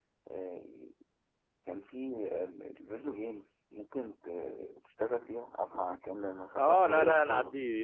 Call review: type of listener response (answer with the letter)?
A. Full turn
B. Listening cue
A